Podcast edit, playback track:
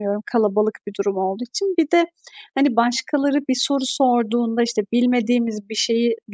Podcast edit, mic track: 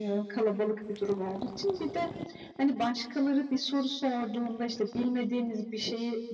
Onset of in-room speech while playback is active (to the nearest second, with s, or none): none